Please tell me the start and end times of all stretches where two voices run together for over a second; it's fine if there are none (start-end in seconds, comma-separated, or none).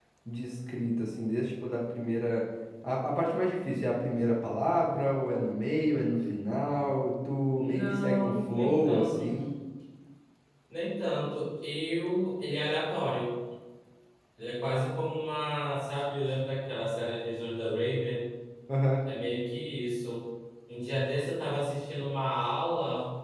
7.6-9.3